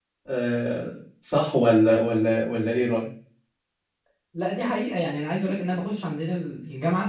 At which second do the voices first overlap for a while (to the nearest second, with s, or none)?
none